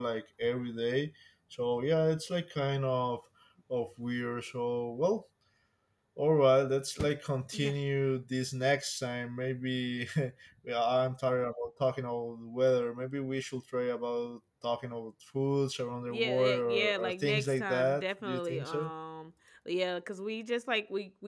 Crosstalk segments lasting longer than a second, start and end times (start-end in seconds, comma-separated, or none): 16.1-18.9